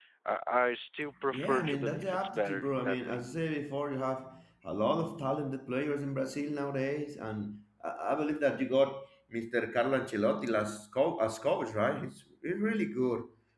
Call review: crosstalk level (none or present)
present